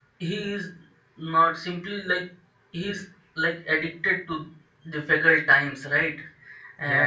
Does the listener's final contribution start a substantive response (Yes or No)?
No